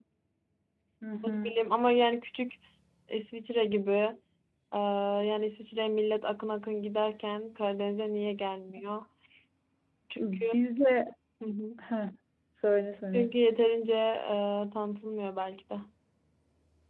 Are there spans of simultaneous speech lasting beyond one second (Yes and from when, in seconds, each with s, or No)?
No